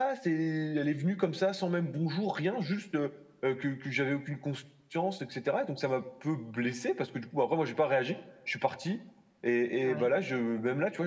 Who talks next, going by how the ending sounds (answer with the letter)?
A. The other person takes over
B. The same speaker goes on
B